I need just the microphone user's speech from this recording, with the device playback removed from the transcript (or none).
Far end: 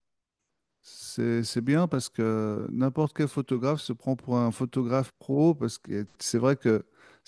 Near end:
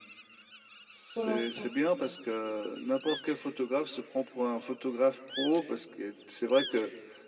pour l'instant.